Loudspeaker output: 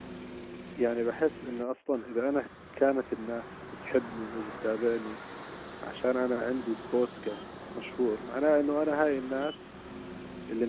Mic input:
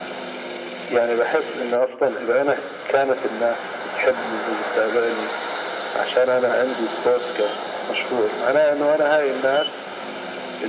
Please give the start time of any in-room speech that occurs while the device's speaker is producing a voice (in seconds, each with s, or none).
none